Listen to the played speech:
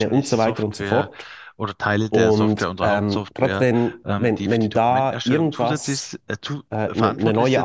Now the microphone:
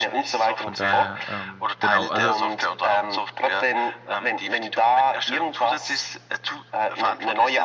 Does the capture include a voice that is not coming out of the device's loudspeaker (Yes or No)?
Yes